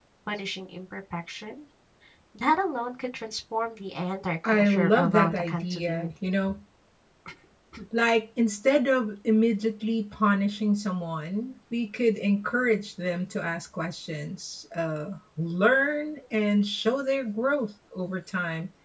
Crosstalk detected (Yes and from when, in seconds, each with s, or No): Yes, from 4.4 s